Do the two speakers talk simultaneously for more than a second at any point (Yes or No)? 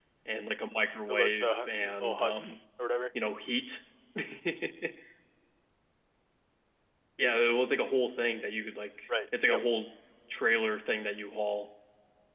Yes